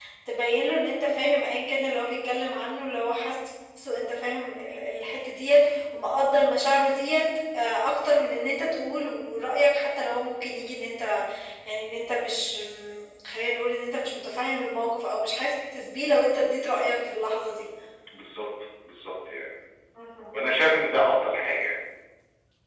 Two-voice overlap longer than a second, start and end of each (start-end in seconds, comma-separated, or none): none